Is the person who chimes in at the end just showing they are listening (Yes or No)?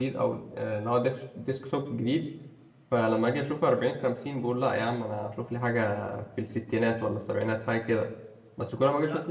Yes